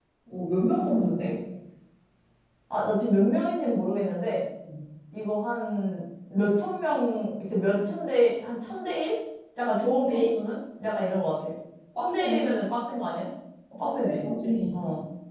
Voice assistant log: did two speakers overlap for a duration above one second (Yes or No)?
No